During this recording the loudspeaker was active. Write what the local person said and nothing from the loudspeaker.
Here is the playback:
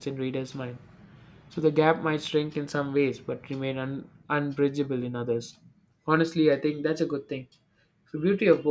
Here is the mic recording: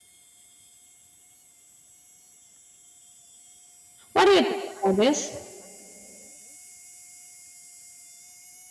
What do you think about this?

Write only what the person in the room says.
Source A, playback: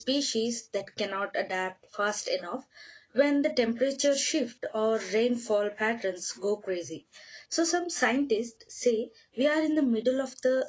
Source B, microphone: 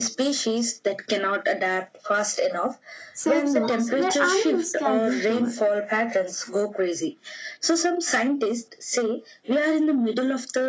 safe zones where animals can recover.

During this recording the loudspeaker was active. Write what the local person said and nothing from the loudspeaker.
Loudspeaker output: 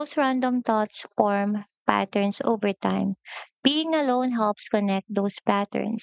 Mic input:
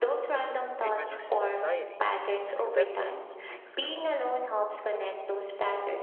It reduces anxiety, and acceptance brings calm.

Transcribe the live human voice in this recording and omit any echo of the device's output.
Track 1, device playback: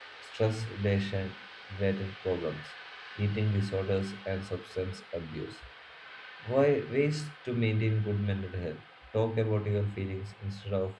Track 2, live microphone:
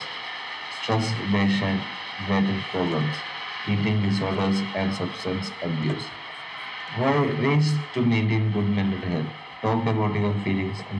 none

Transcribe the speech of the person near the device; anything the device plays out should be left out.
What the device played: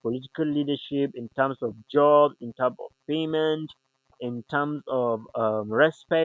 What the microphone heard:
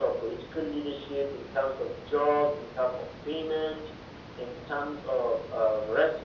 none

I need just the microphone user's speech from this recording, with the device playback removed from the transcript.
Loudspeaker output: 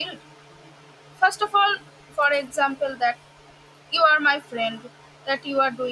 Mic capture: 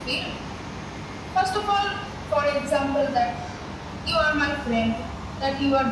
none

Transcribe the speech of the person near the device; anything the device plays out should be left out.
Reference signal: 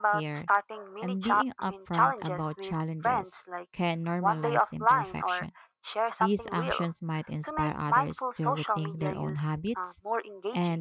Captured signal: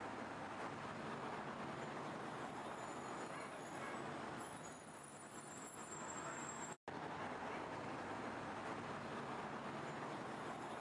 none

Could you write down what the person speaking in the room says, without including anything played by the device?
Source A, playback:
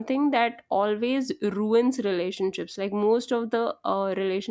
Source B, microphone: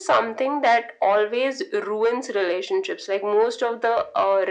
none

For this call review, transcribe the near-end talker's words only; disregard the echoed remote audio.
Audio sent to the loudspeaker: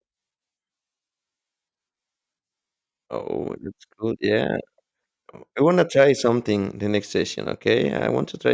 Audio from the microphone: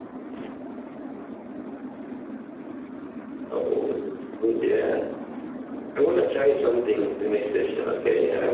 none

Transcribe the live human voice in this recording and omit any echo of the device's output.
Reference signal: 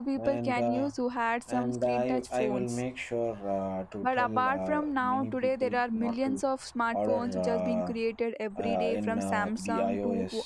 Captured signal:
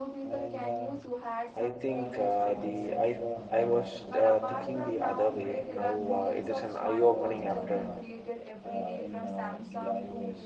I think uh, the I I was uh, thinking the other way. Now uh, it is an eye opening after

